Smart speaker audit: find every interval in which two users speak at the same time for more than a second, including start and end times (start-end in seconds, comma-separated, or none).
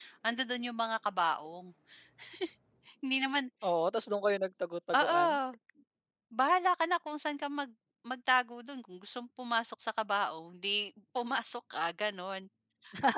none